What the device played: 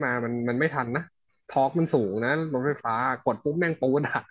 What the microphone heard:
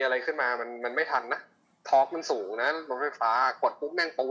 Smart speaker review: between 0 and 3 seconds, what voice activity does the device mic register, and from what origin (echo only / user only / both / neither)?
echo only